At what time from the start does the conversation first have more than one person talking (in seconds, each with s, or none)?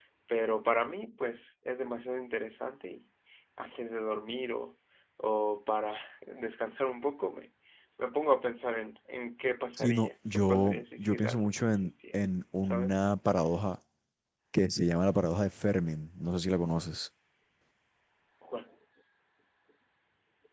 9.8 s